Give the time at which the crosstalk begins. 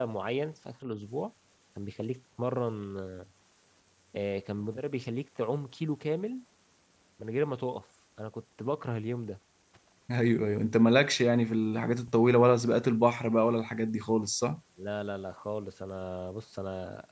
none

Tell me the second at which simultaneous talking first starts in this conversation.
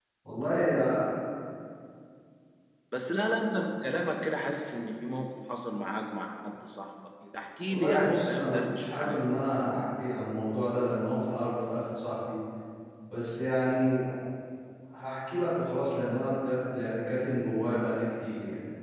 8 s

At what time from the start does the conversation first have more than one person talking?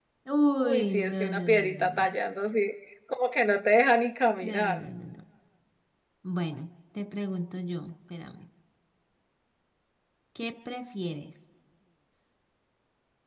1 s

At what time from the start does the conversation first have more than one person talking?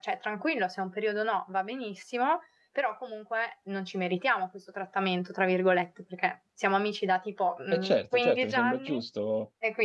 8 s

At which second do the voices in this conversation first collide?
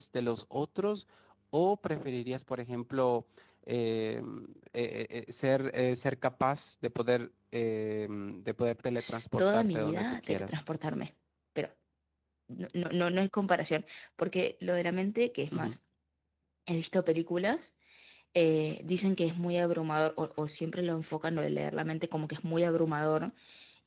9 s

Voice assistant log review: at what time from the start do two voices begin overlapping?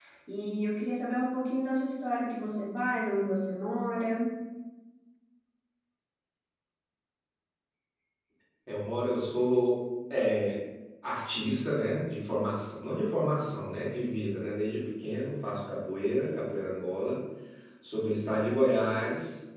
none

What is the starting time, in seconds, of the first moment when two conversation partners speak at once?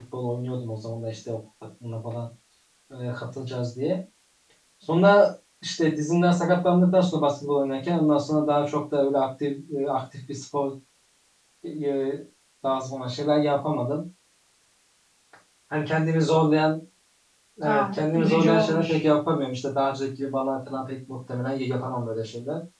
18 s

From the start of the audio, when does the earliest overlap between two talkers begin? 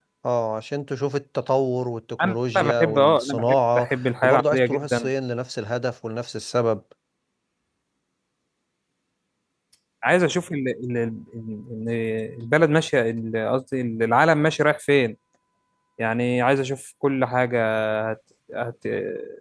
2 s

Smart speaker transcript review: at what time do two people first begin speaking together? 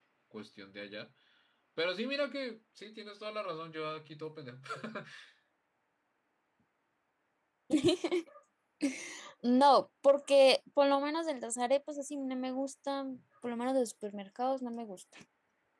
none

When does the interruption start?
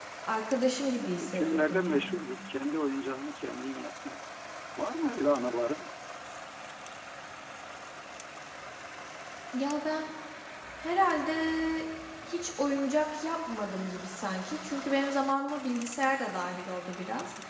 1 s

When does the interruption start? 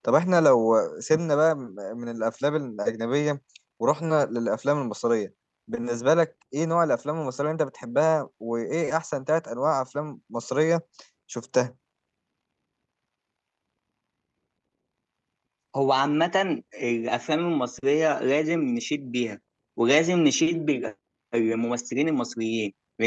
none

